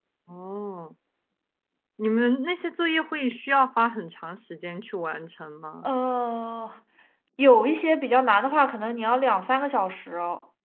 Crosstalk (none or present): none